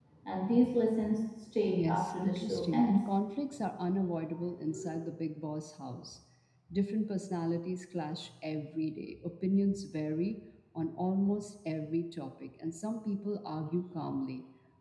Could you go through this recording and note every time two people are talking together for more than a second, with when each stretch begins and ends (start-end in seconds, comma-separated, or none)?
1.7-3.0